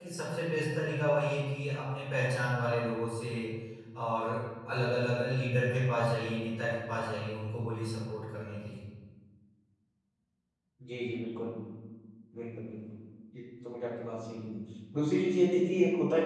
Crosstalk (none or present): none